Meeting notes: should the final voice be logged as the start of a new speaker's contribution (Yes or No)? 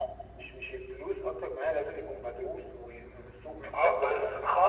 Yes